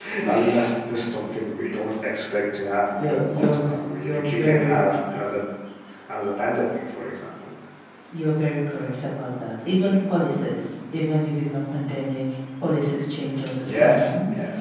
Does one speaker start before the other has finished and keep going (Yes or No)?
Yes